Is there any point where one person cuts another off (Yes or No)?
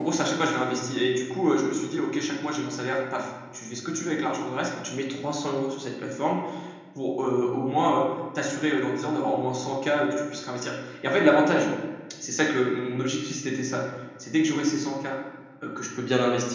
No